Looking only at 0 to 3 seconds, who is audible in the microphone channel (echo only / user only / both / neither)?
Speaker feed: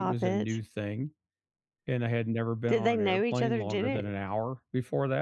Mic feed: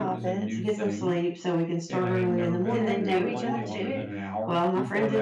both